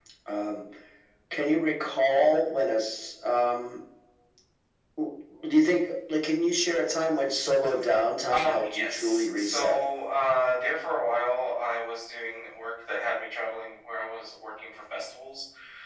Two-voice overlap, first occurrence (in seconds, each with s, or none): 8.3 s